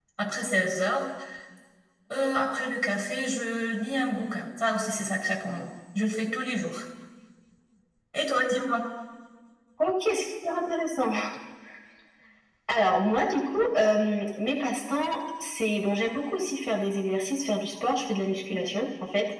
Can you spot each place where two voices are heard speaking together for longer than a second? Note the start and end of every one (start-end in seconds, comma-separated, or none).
none